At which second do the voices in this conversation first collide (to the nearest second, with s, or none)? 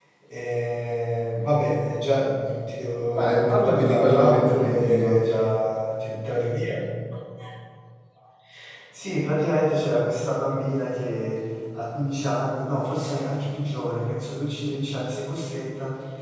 3 s